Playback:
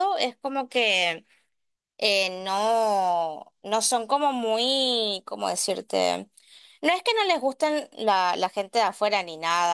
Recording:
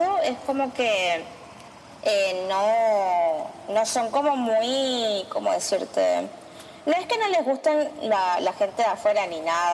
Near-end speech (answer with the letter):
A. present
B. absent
B